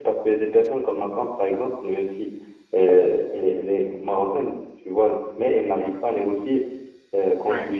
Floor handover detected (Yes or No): No